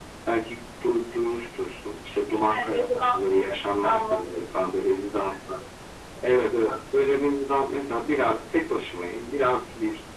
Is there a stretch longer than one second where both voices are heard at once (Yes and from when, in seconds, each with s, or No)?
Yes, from 2.5 s